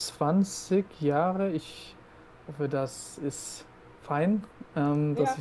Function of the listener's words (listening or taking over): taking over